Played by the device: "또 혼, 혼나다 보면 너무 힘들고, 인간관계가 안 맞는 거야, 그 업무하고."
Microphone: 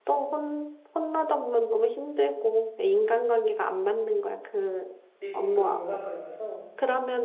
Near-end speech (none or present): present